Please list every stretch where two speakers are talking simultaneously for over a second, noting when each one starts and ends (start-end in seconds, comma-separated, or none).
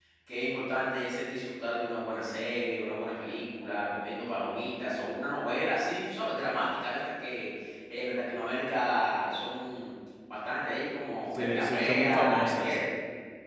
11.3-12.8